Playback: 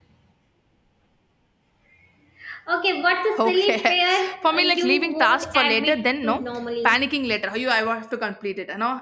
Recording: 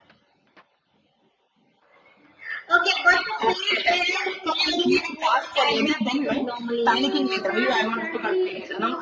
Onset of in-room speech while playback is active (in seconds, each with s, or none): 6.9 s